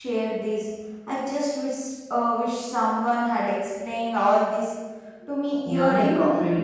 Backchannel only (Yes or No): No